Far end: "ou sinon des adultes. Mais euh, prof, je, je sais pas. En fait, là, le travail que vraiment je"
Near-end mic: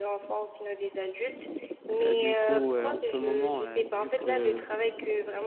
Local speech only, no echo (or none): Euh, du coup, euh, en ce moment, euh, vu que